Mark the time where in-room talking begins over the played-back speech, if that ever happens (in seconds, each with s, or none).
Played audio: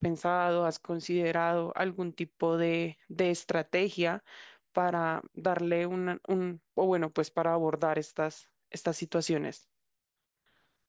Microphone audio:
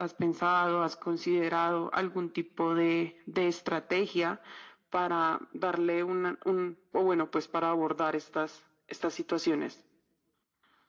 none